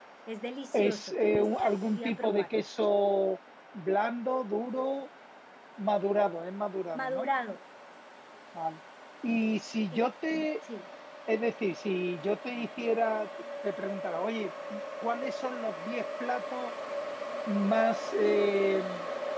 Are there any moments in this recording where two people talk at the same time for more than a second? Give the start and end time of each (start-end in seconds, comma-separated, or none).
0.7-2.6